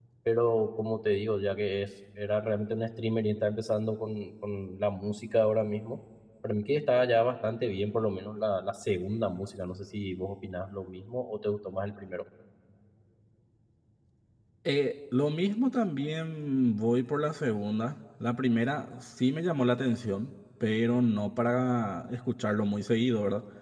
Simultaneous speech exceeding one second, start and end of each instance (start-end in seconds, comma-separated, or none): none